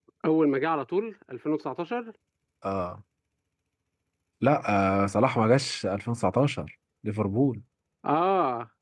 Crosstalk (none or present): none